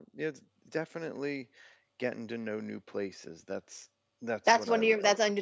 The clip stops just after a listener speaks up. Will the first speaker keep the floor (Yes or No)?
No